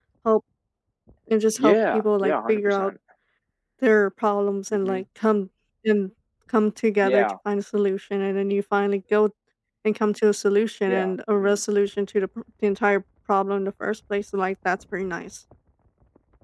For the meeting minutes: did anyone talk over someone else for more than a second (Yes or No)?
Yes